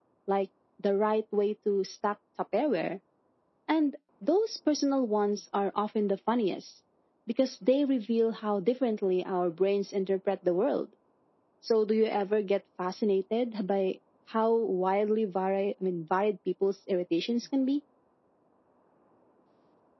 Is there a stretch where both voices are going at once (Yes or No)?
No